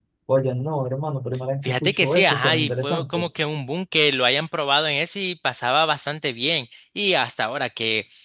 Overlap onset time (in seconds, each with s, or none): 1.6 s